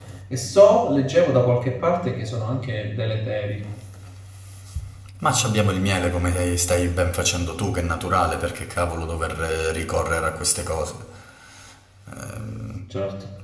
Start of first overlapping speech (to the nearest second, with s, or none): none